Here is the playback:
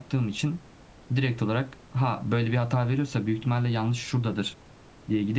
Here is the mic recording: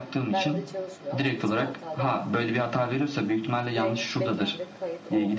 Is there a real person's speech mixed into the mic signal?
Yes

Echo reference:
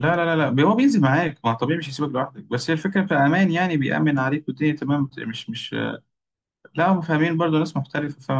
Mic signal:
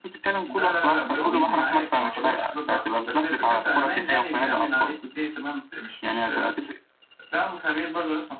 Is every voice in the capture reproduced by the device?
No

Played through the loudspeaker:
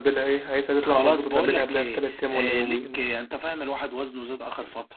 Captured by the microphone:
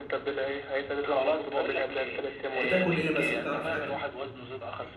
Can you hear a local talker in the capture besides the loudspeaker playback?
Yes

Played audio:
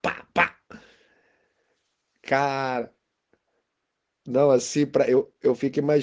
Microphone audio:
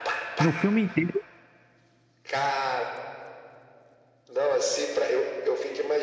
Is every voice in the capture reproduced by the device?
No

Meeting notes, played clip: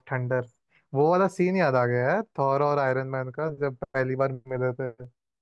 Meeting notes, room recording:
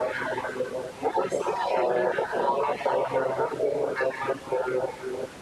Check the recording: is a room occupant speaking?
No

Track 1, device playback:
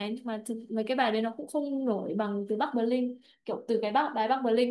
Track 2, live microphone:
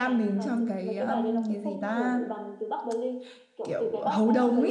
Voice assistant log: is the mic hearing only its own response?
No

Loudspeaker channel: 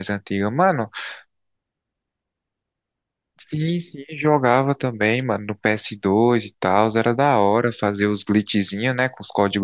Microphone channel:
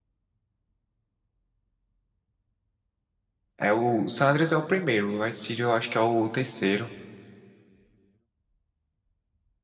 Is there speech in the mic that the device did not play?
Yes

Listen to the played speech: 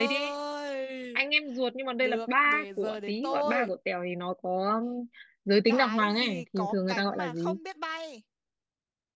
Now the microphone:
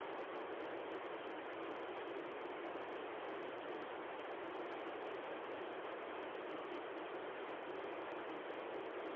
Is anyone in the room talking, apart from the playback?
No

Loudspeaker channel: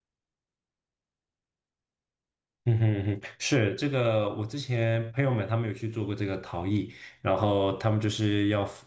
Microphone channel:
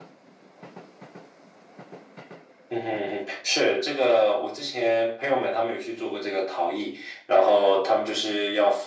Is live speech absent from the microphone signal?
Yes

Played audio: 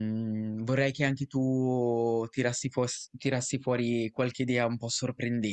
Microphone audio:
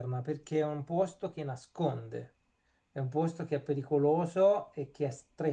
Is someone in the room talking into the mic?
Yes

